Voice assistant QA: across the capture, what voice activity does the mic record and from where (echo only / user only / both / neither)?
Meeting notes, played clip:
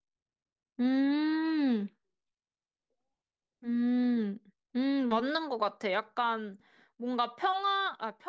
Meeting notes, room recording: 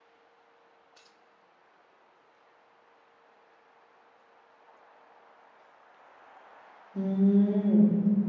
user only